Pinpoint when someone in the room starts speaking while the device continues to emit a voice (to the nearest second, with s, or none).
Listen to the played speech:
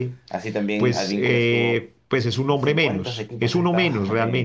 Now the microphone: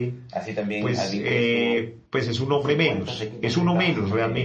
none